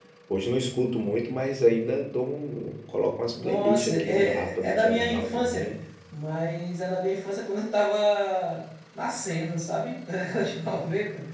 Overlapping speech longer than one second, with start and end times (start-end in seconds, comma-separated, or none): 3.4-5.7